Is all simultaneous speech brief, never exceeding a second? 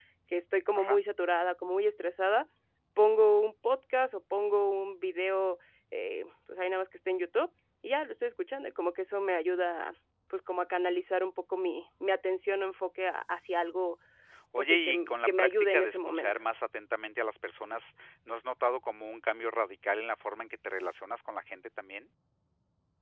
No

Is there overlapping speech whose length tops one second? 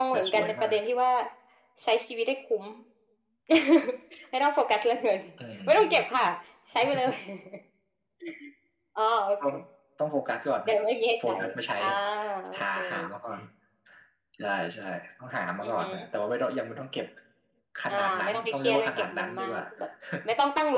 Yes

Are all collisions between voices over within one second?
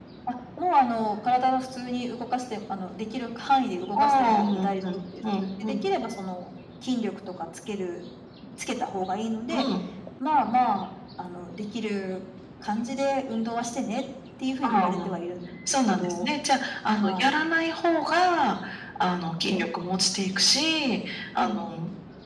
No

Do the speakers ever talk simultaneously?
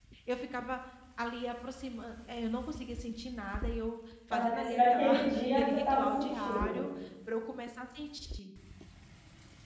Yes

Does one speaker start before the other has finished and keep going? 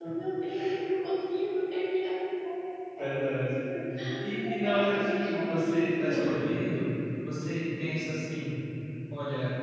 Yes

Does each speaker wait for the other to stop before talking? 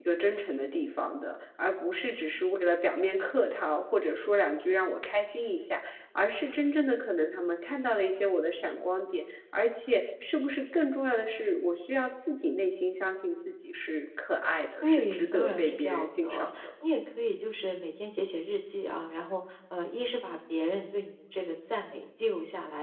No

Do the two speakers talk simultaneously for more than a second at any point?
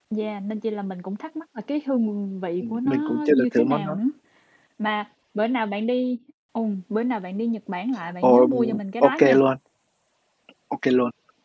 Yes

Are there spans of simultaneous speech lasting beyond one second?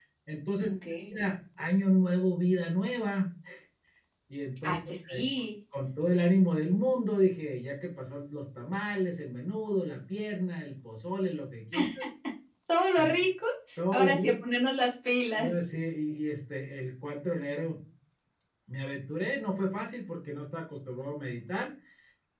No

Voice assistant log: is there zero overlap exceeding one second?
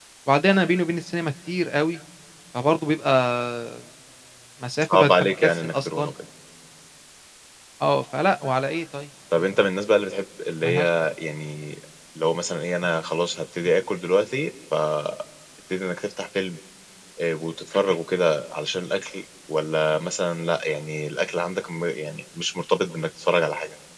No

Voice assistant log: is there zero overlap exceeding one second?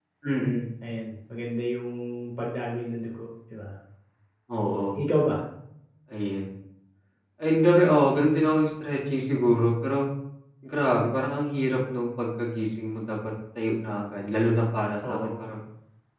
Yes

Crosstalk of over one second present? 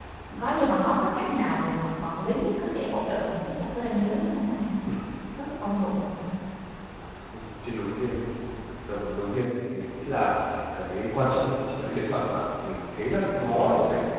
No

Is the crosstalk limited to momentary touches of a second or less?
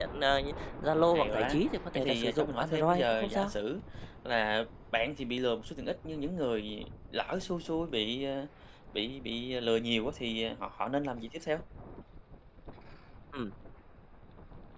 No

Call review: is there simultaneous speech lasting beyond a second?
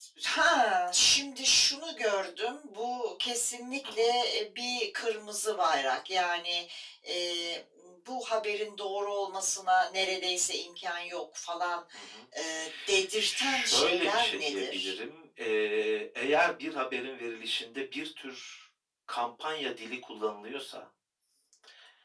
Yes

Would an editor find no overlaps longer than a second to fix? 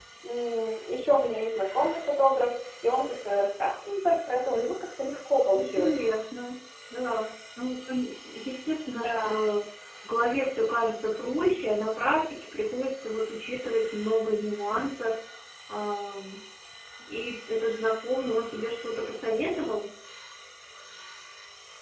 Yes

